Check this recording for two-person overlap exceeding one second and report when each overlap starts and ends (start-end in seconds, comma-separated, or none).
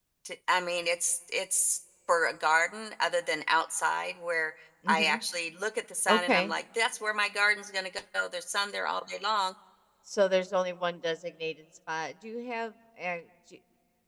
none